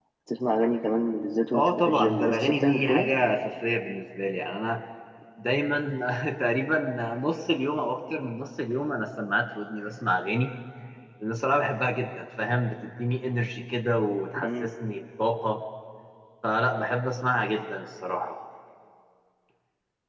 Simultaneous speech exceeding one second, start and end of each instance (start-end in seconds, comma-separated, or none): 1.5-3.1